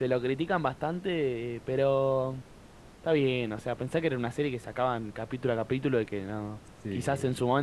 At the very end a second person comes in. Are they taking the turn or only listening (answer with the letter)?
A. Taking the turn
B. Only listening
B